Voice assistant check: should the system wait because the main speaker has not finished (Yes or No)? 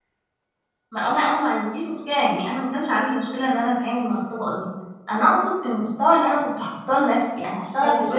Yes